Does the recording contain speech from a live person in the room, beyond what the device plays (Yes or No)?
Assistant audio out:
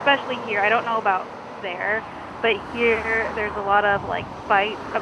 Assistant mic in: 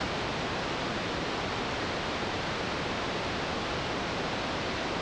No